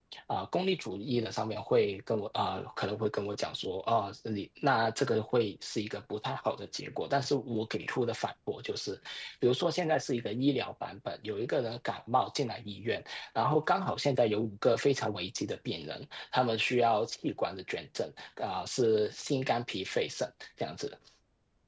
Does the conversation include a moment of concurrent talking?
No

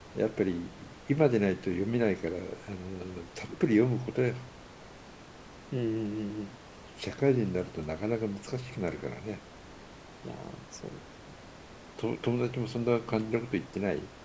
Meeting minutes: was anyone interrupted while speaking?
No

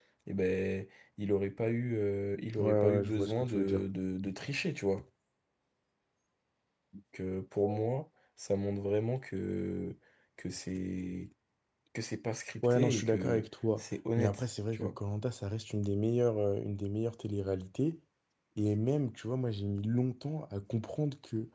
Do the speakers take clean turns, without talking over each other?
No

